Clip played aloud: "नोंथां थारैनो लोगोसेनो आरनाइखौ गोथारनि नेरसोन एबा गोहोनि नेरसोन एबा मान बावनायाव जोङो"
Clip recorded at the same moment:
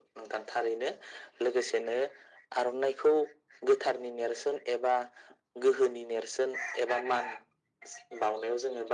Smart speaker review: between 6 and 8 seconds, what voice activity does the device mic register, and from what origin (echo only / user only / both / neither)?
echo only